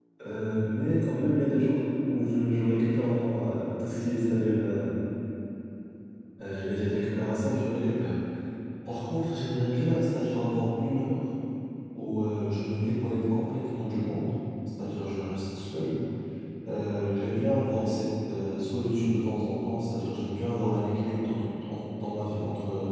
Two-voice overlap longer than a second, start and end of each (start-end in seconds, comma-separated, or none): none